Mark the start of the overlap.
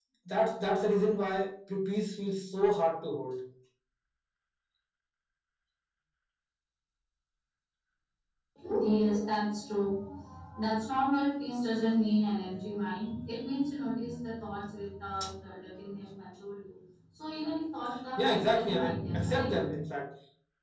18.2 s

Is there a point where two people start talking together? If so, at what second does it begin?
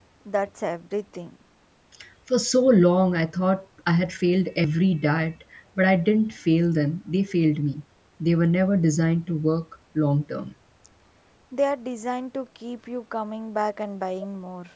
none

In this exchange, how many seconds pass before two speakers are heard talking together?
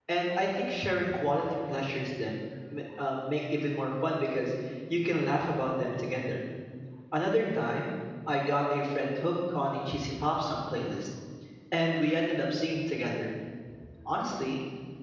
none

